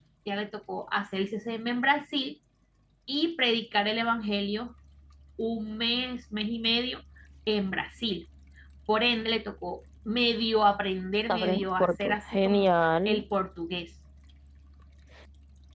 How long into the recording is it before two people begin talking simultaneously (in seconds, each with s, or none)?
11.3 s